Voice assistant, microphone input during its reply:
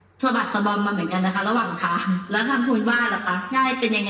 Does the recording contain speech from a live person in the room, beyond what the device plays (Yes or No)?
No